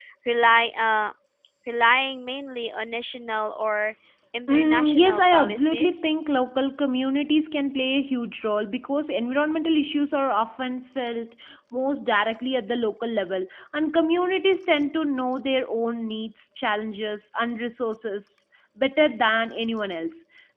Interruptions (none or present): present